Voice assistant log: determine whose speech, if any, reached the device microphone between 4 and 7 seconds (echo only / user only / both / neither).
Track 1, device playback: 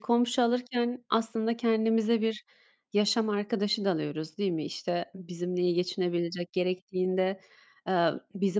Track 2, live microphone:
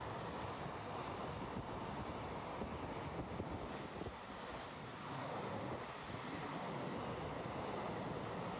neither